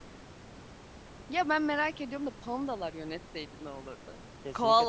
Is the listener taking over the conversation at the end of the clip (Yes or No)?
Yes